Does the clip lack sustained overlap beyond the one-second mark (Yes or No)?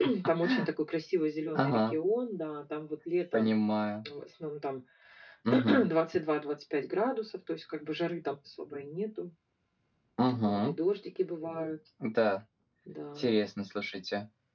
Yes